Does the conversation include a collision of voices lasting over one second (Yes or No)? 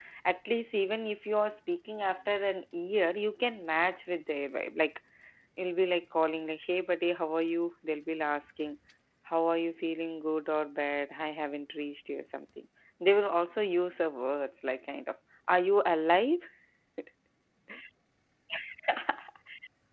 No